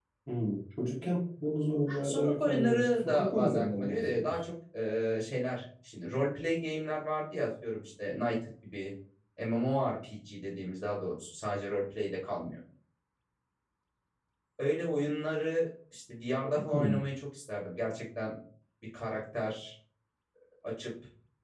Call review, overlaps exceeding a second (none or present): present